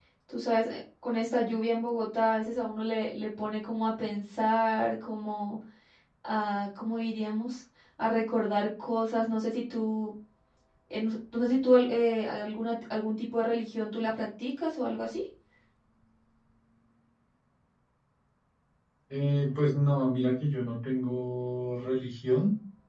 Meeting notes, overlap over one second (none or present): none